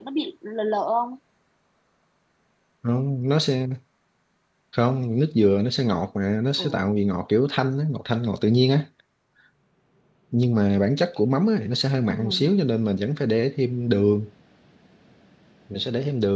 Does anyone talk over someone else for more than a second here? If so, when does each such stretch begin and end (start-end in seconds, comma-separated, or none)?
none